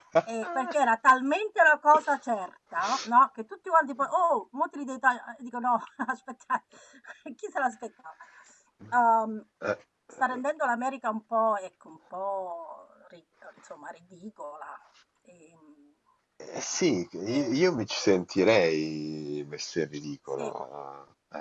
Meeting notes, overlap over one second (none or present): none